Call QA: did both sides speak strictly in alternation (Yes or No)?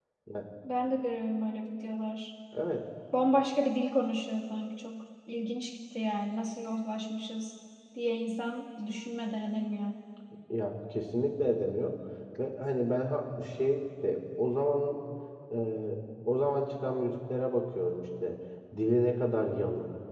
Yes